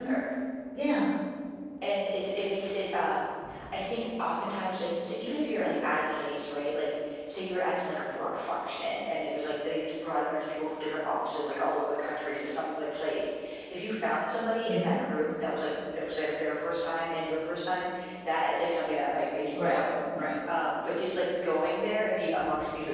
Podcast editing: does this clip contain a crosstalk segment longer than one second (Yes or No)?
No